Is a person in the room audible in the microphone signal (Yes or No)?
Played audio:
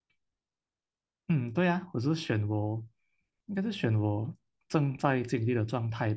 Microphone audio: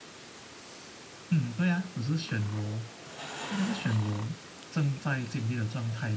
No